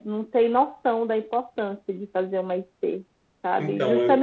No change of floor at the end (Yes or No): Yes